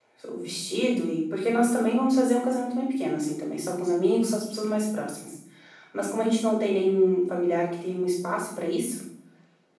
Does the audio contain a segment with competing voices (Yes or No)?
No